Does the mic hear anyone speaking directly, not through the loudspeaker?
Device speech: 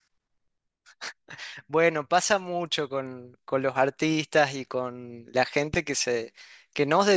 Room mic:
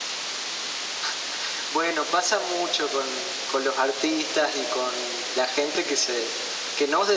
No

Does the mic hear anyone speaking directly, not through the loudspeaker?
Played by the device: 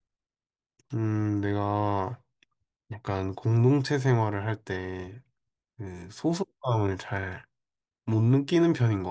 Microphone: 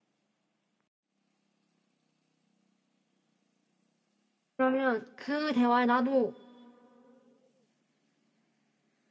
Yes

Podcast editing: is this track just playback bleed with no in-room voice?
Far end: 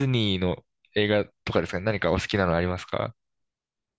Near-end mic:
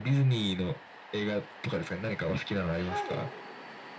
No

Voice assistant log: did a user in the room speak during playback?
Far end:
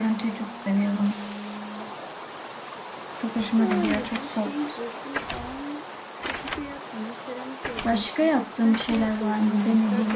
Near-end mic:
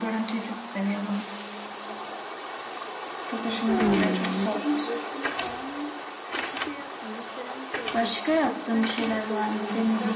Yes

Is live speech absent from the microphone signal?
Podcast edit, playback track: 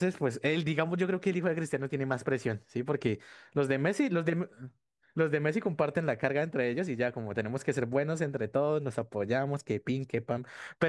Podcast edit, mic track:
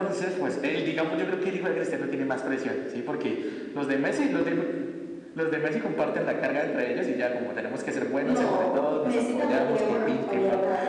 No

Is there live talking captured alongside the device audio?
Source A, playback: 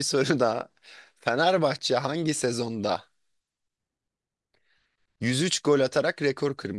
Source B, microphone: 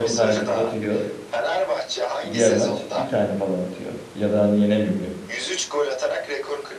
Yes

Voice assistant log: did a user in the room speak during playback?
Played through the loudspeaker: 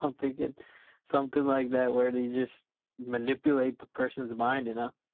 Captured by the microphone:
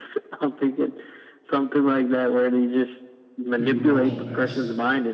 Yes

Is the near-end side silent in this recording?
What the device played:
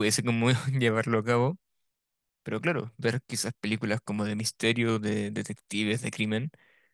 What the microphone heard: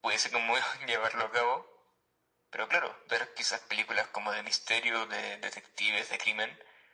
Yes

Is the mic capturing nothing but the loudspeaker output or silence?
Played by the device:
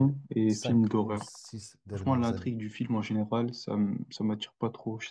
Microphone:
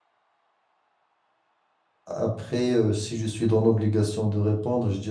No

